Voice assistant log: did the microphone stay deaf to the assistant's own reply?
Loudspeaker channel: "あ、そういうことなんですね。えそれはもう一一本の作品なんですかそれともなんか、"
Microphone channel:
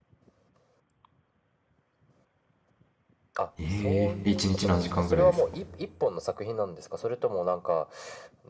No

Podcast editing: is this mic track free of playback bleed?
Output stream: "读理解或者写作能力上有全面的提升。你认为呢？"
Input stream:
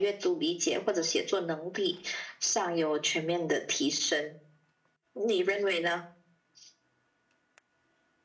No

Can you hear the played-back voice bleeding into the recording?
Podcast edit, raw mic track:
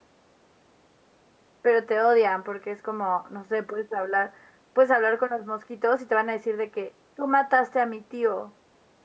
No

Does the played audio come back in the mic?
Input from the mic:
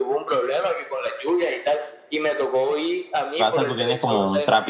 Yes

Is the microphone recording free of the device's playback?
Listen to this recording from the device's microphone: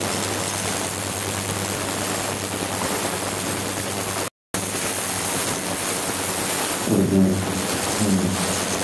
Yes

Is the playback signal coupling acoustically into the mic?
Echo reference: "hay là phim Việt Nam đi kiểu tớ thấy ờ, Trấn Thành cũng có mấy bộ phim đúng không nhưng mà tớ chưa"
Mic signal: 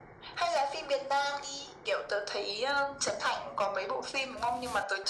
Yes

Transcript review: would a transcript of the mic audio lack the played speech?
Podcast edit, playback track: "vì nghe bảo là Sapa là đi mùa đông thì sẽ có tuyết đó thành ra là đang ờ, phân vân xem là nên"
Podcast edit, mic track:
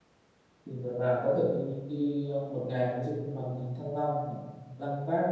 Yes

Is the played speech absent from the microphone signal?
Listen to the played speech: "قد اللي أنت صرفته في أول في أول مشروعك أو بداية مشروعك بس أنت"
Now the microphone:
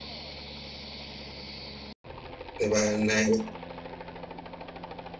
Yes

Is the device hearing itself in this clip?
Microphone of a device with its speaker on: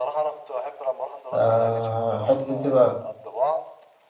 Yes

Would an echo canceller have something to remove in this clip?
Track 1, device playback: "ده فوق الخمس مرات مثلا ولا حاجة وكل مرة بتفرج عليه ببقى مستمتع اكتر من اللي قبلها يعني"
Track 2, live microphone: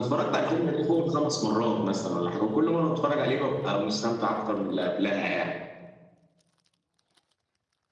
Yes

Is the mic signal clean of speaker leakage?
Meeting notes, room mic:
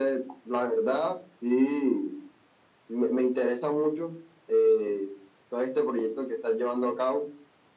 No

